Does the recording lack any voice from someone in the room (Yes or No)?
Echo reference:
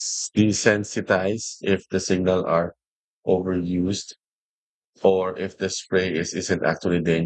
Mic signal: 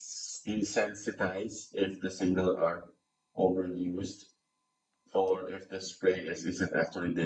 Yes